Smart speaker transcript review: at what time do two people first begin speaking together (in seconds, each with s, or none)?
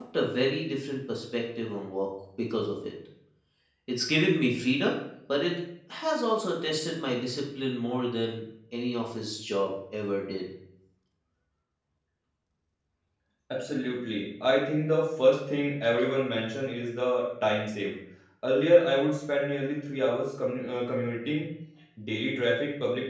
none